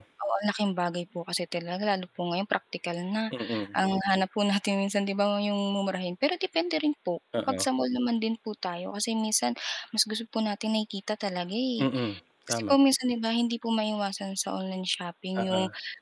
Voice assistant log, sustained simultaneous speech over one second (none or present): none